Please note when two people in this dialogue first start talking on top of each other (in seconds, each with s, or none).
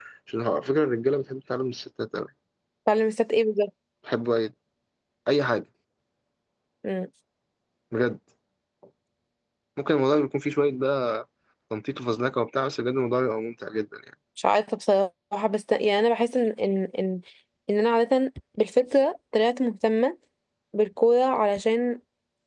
none